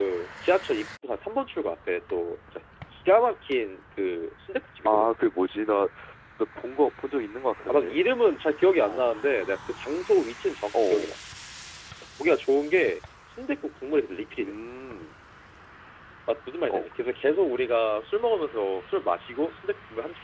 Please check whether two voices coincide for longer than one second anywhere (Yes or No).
No